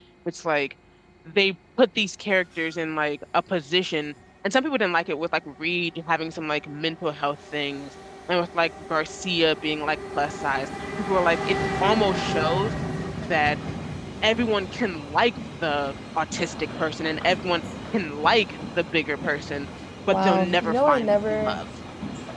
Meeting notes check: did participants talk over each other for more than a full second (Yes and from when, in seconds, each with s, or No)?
Yes, from 20.1 s